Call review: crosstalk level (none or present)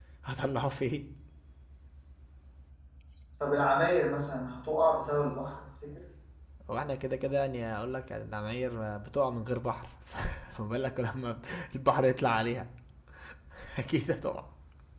none